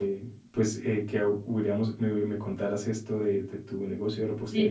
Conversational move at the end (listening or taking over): taking over